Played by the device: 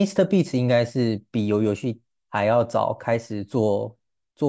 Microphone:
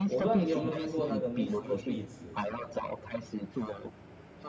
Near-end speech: present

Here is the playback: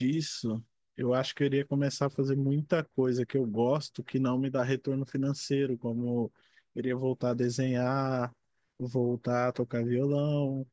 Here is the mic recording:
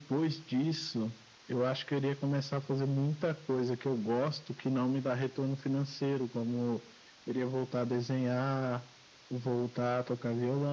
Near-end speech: none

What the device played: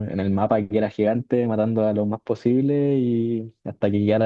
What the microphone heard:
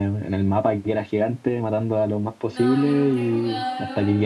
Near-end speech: present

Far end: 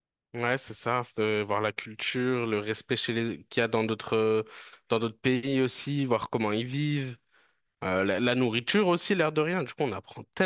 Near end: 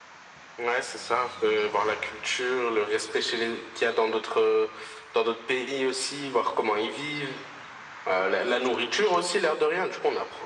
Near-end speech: none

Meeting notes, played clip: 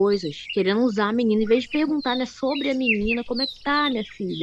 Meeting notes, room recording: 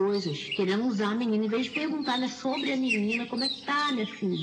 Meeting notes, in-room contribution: none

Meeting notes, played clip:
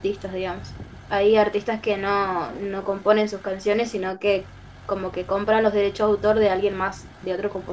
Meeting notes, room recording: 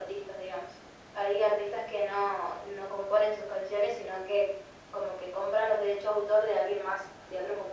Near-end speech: none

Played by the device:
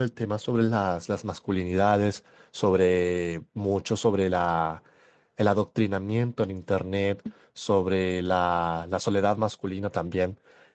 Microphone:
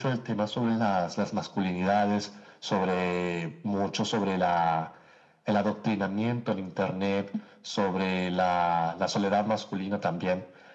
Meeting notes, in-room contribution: none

